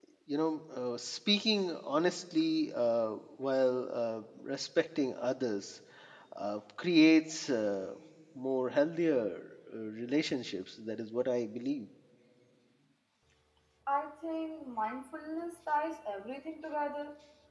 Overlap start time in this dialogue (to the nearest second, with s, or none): none